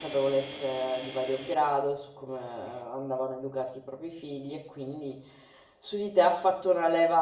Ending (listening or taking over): listening